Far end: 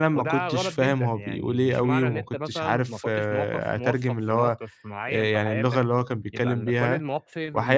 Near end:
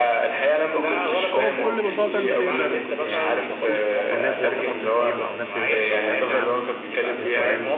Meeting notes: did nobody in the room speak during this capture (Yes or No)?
No